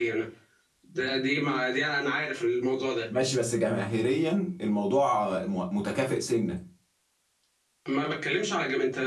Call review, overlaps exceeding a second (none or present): none